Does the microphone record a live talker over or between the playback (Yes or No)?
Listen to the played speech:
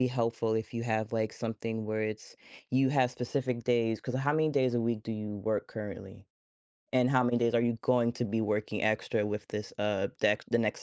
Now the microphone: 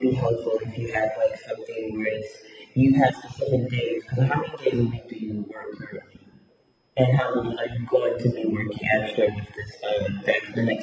No